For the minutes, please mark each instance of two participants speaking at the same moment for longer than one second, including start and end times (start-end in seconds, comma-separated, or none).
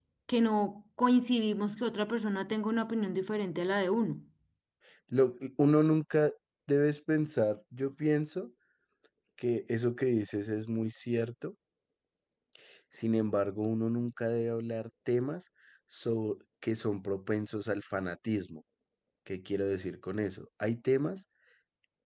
none